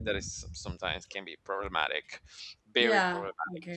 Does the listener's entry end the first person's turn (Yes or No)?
Yes